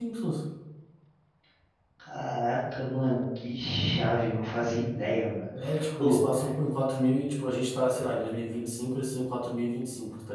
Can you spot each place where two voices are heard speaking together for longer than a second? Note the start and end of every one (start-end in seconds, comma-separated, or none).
none